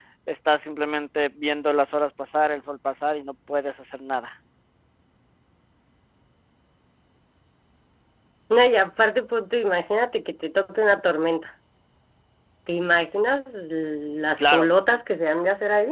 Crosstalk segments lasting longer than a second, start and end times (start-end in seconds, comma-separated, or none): none